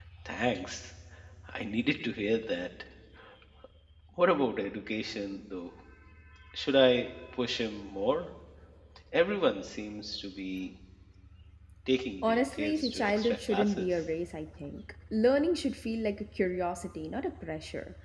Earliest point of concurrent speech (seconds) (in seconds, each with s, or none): 12.2 s